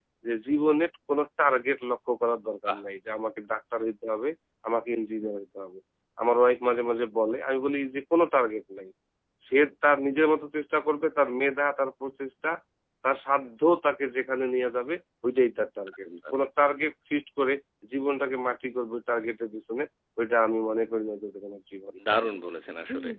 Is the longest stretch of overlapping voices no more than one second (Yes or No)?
Yes